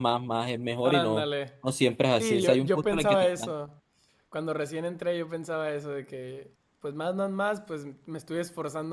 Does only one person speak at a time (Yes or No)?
No